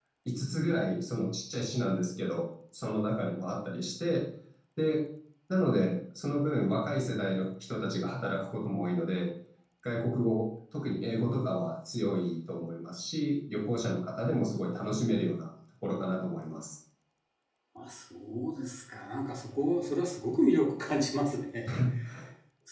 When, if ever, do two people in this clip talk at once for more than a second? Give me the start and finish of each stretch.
none

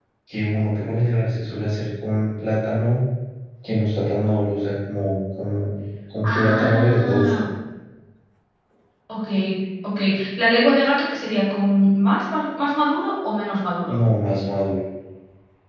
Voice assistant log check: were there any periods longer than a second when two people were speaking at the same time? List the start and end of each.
6.2-7.5

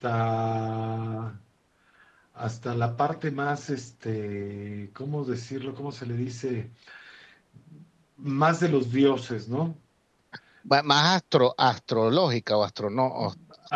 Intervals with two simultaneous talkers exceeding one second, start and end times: none

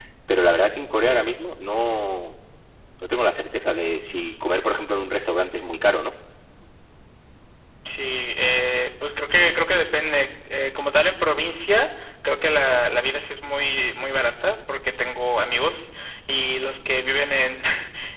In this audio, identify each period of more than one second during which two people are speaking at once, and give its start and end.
none

